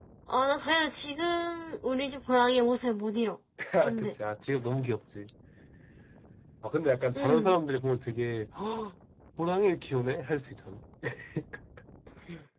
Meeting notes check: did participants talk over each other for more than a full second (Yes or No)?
No